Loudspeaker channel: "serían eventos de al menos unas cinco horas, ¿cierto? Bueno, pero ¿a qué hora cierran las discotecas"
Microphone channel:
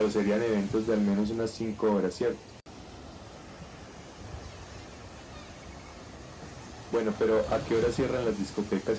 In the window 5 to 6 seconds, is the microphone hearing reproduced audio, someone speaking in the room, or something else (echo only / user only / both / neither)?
neither